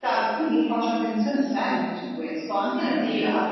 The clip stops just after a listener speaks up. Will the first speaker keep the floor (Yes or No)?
No